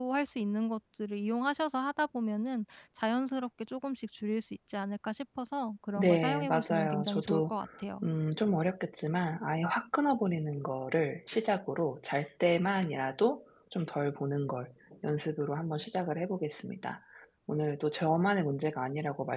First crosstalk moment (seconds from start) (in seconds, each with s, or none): 6.0 s